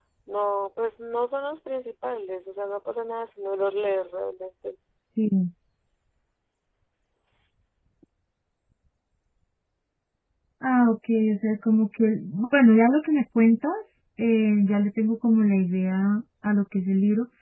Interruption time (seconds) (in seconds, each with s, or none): none